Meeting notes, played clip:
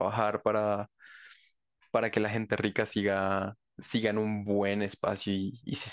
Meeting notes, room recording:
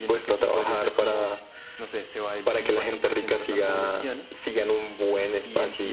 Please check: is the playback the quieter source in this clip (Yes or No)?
No